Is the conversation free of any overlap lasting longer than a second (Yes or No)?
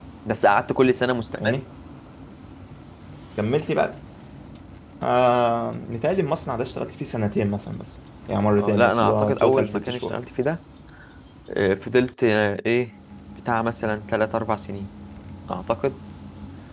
No